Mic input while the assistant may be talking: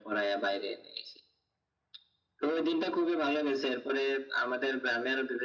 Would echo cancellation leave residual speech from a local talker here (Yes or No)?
No